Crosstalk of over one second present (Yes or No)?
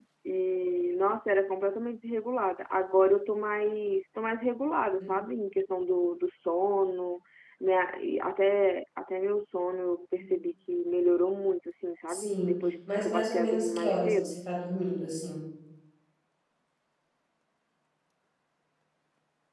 Yes